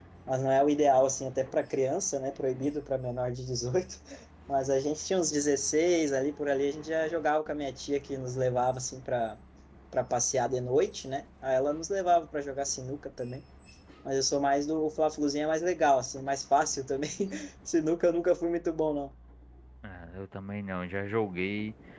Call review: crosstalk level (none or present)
none